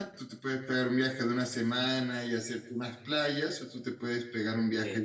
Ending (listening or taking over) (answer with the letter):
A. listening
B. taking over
A